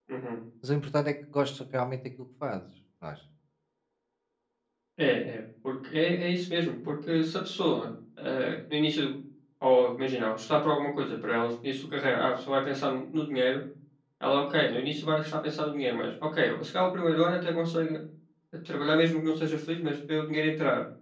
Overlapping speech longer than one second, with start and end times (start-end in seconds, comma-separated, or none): none